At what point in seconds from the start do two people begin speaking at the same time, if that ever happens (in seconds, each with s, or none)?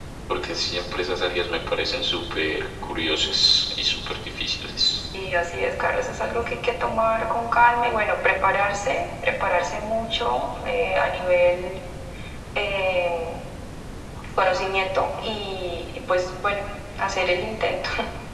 none